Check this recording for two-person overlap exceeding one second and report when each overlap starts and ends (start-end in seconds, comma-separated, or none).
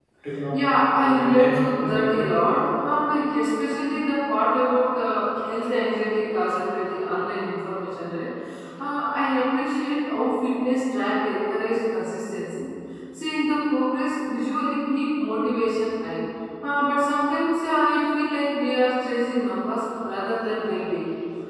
1.0-2.2